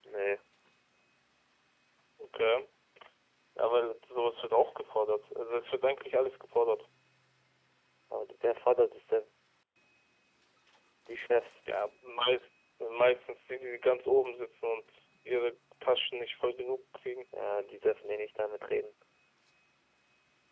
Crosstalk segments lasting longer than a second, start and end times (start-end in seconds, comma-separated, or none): none